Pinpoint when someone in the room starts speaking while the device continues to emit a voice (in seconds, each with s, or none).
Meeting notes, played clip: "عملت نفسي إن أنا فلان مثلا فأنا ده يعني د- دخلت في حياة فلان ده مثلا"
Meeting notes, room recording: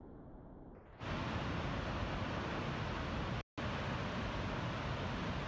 none